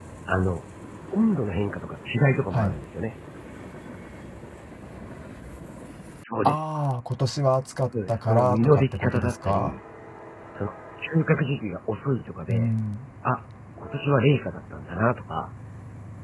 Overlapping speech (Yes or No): Yes